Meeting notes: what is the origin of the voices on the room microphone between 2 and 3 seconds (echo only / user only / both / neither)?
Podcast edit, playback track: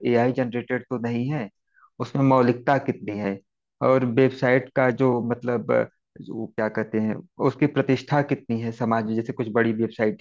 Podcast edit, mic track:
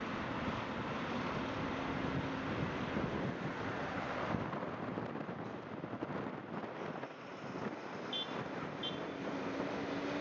neither